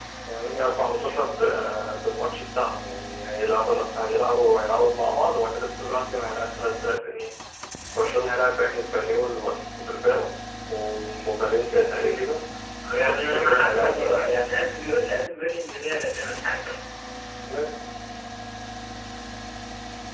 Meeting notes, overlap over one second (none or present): present